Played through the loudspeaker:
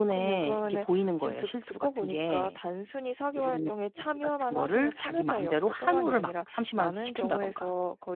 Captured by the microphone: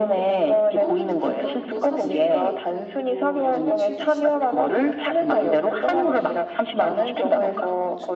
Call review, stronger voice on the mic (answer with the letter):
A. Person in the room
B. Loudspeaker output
B